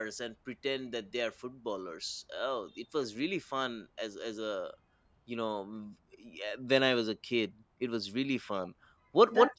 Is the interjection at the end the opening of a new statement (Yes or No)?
Yes